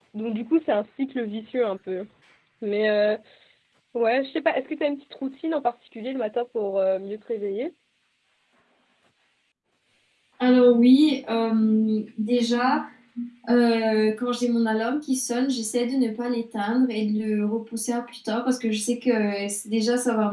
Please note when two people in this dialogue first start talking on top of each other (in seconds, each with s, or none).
none